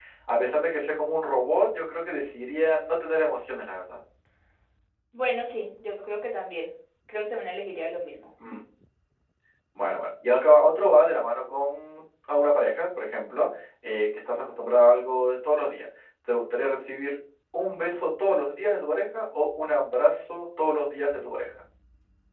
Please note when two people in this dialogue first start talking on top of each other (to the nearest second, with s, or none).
none